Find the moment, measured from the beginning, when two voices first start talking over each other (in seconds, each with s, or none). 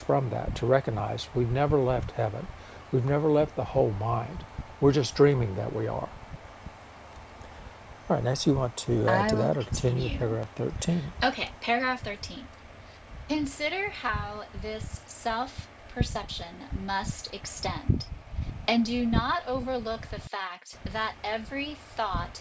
9.1 s